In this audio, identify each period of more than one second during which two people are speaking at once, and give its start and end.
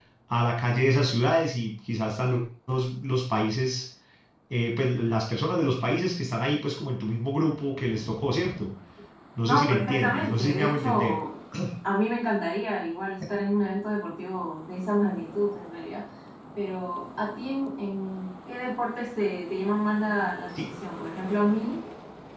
9.4-11.2

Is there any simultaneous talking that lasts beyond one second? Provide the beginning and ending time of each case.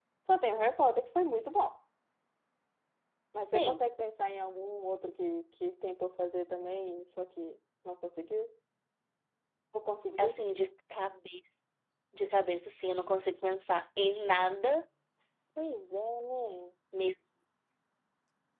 none

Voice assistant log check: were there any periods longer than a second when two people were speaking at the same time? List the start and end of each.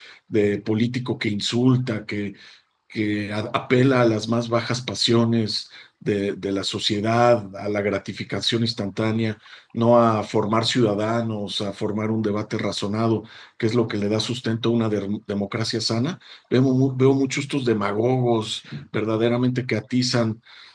none

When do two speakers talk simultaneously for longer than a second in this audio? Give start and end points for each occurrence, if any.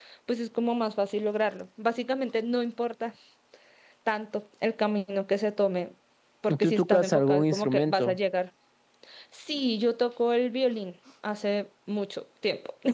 6.5-8.2

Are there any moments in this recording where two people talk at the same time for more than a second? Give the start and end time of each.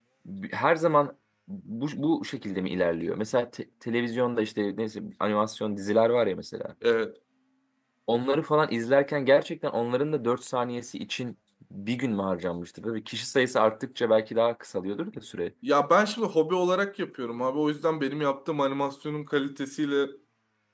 none

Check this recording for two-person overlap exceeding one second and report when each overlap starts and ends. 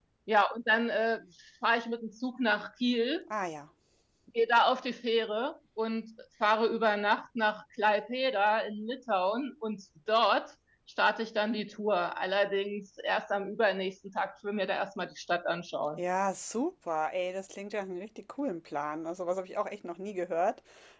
none

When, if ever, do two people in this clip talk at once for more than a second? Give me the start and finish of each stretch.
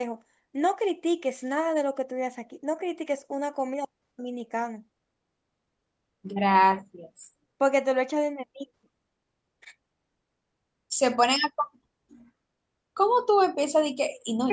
none

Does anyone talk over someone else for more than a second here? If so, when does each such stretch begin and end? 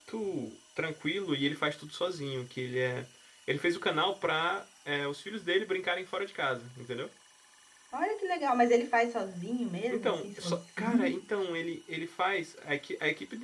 9.9-11.2

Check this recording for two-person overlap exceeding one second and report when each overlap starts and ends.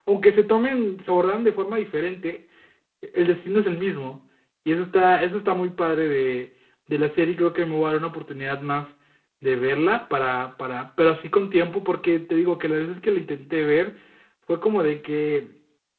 none

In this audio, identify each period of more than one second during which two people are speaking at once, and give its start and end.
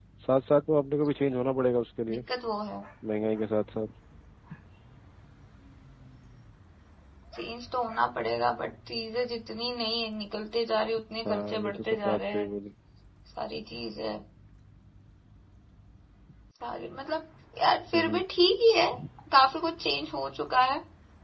11.2-12.5

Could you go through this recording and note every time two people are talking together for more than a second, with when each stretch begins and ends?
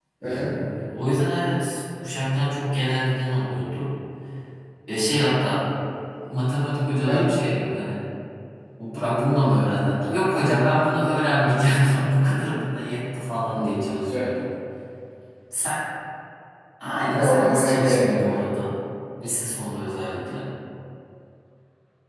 17.2-18.4

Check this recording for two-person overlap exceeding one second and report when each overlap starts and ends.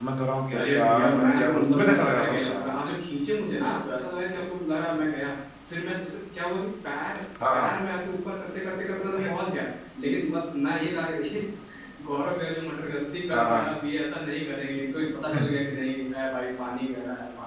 0.6-2.6

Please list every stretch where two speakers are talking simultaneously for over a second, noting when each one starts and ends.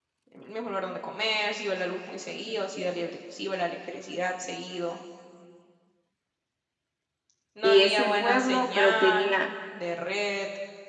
7.6-9.3

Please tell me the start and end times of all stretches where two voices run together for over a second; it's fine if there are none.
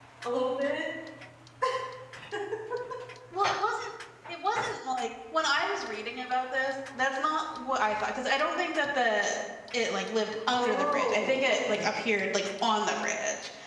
10.5-11.9

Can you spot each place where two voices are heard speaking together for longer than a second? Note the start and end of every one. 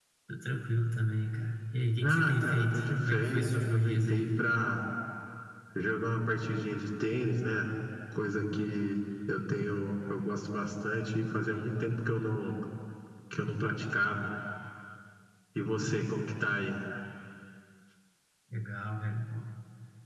2.0-4.3

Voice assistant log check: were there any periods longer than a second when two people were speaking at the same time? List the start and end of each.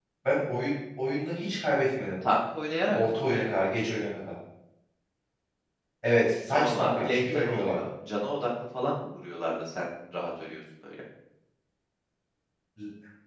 6.5-7.8

